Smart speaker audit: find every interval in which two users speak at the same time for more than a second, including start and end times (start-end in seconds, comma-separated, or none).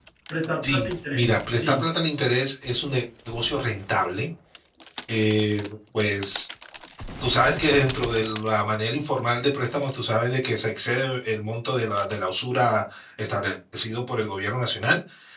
0.6-1.9